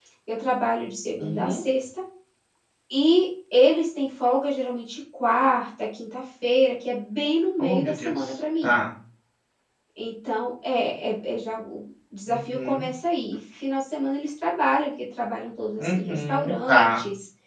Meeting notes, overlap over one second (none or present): present